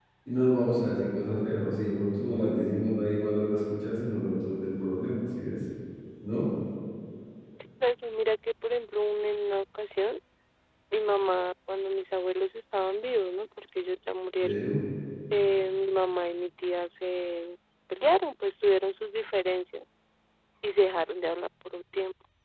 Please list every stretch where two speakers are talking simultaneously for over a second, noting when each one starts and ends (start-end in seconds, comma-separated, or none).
none